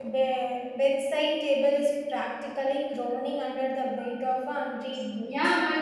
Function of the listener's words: taking over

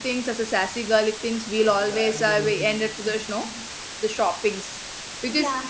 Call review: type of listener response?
listening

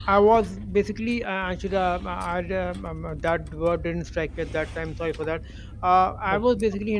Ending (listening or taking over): listening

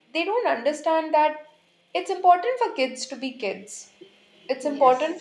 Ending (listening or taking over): listening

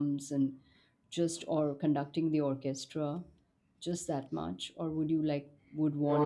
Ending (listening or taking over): listening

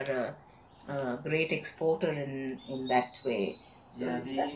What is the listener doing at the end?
taking over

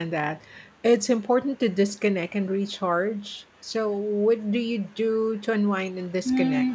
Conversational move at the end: taking over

